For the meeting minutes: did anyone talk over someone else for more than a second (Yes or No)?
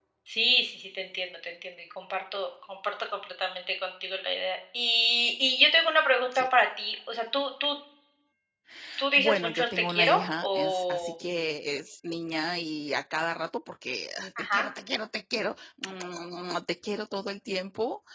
Yes